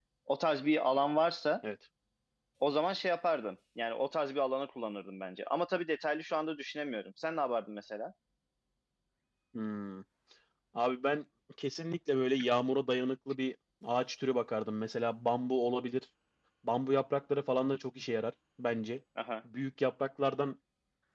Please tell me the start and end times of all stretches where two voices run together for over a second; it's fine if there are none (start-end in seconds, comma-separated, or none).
none